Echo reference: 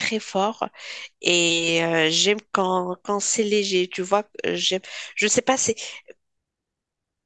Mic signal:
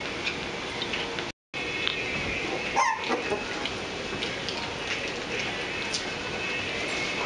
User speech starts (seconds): none

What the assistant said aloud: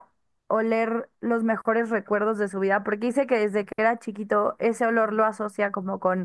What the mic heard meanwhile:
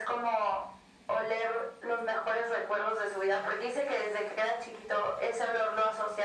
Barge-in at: none

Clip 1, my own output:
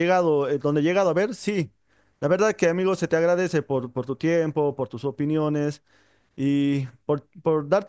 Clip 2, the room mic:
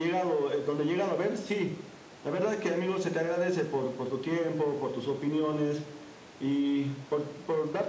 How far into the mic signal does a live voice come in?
none

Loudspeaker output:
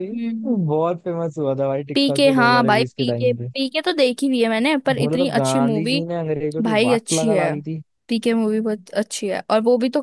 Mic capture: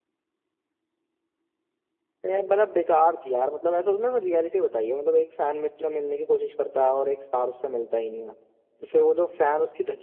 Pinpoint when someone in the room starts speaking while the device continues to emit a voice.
2.2 s

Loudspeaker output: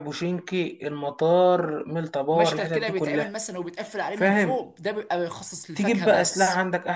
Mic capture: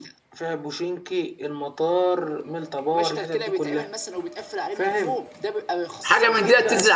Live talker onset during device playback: 6.0 s

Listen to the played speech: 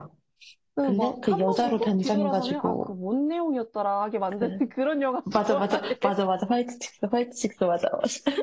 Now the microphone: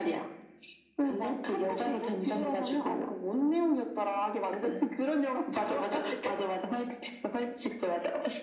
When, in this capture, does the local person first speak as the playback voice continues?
none

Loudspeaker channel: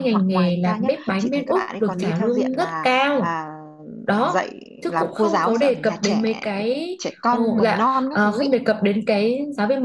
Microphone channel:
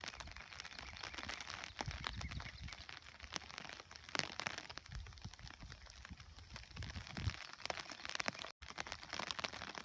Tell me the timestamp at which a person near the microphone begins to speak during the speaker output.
none

